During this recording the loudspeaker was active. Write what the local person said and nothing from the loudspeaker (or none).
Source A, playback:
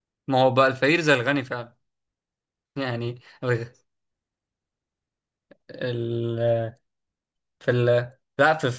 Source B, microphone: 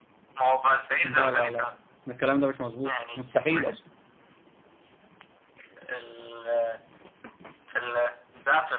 لا لا لا الكلام ده مش مظبوط مستحيل اصلا